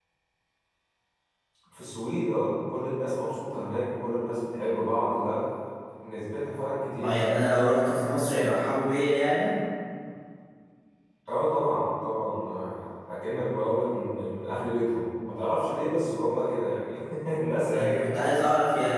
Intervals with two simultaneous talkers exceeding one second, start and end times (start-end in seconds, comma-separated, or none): none